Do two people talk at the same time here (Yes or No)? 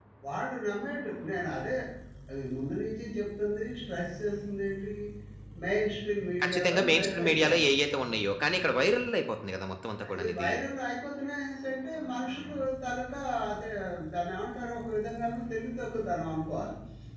Yes